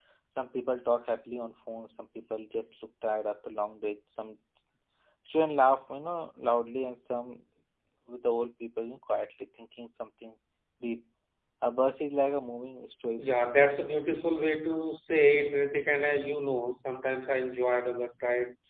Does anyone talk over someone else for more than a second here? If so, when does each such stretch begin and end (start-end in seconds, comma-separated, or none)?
none